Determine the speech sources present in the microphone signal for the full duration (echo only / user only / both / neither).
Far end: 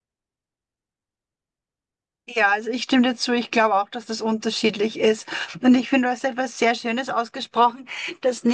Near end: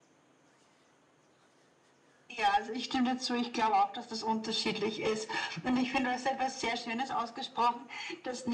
echo only